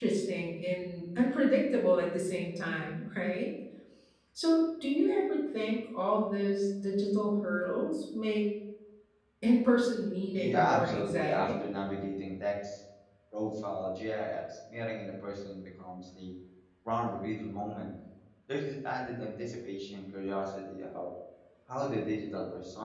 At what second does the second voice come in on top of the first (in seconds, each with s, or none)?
10.3 s